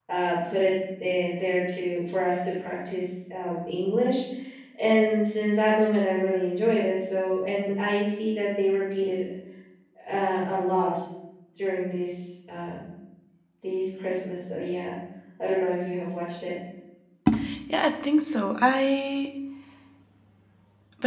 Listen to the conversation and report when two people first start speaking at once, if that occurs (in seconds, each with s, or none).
none